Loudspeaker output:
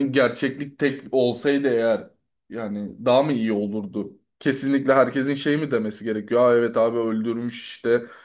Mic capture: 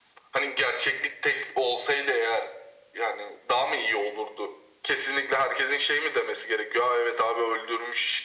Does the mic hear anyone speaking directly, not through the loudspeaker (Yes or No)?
No